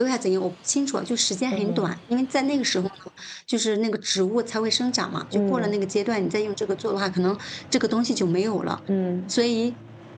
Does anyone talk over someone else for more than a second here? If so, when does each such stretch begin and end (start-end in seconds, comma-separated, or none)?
none